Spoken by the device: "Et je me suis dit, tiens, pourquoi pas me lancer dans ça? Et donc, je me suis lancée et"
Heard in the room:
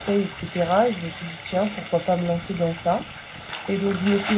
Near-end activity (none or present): none